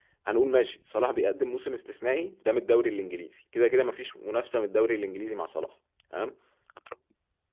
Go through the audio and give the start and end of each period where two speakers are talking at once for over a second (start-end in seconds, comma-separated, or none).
none